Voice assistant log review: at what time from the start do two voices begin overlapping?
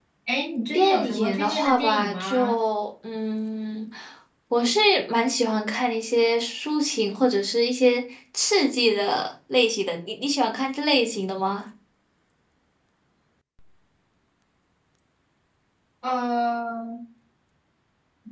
0.7 s

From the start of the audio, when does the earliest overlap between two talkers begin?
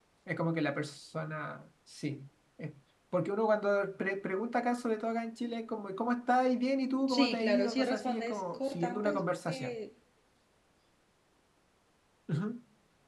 7.1 s

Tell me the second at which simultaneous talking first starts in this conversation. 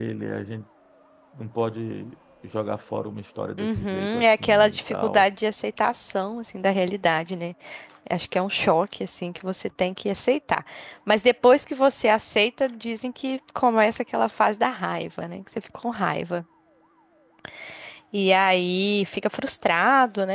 3.6 s

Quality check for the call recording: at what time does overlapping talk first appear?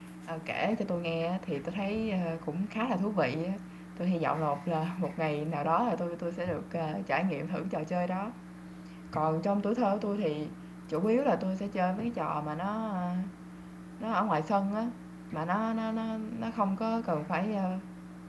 none

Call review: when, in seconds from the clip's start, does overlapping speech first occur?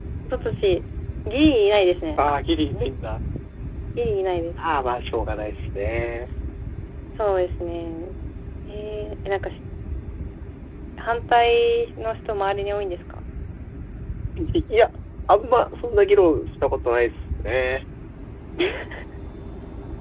none

